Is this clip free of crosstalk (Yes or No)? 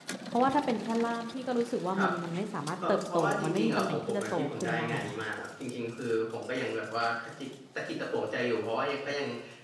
No